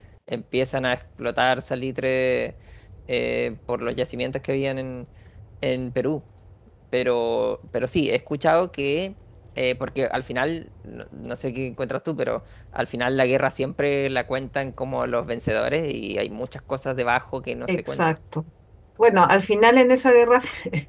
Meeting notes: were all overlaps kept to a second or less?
Yes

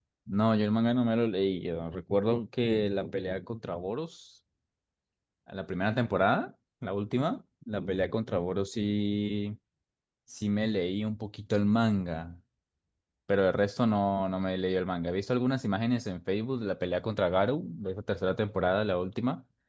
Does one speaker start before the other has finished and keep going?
No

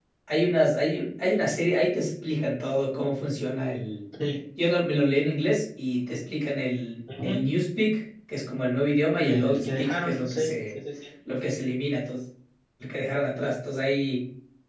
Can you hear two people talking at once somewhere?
Yes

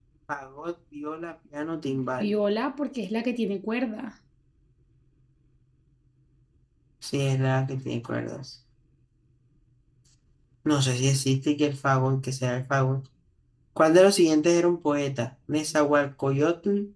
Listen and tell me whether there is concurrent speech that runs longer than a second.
No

